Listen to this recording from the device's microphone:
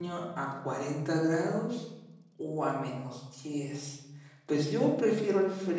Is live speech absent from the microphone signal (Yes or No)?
No